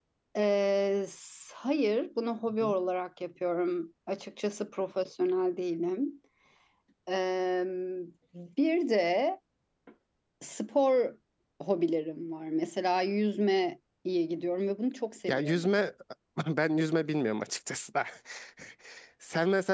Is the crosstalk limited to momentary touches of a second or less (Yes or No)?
Yes